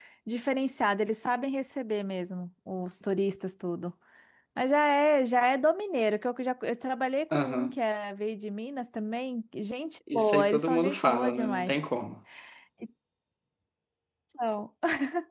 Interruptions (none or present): present